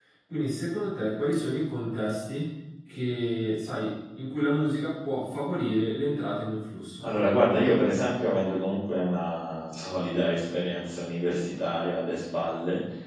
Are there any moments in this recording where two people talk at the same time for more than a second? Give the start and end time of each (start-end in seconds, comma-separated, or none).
none